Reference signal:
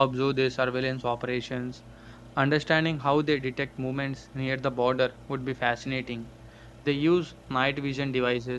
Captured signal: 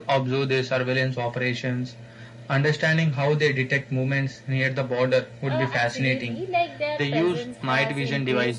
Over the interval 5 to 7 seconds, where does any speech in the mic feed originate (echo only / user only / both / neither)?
both